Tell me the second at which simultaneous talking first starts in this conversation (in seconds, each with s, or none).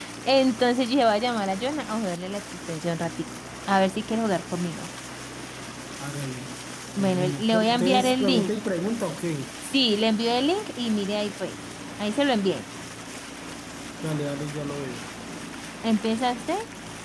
7.0 s